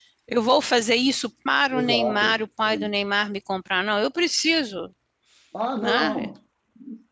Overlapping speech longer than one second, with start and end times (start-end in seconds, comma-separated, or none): 1.7-2.9